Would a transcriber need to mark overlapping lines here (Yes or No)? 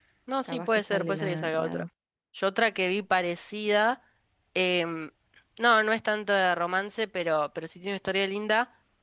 Yes